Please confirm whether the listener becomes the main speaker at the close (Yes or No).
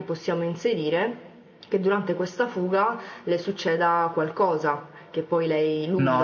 Yes